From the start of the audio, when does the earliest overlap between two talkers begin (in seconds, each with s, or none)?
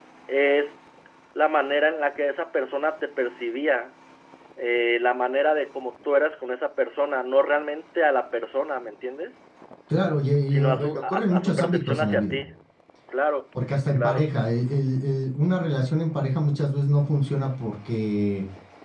10.5 s